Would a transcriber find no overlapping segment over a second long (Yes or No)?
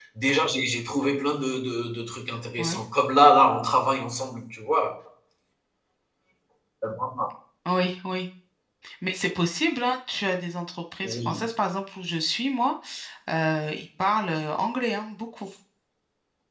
Yes